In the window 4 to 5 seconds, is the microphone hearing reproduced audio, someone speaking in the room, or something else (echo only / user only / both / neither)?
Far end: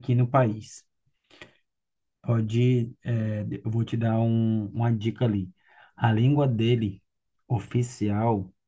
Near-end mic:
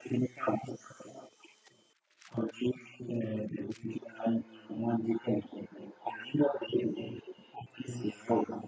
echo only